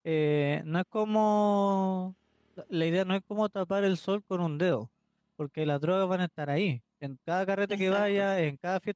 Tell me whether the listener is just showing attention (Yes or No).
Yes